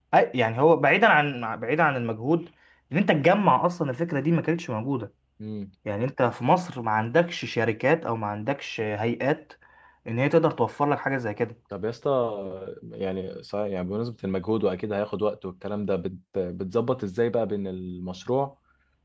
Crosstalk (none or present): none